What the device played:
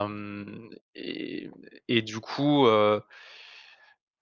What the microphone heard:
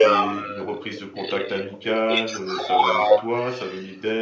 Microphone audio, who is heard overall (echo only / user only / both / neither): both